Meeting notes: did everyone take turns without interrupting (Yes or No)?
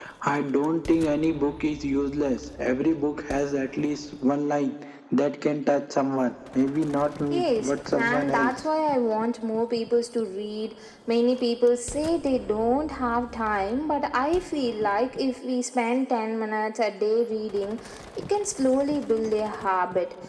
No